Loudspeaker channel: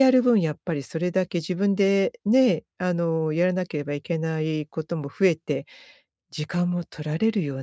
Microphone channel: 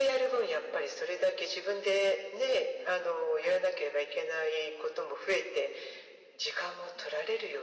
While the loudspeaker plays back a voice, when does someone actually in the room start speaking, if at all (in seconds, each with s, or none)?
none